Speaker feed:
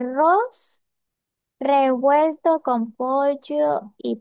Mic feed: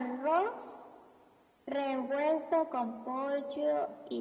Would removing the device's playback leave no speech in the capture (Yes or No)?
Yes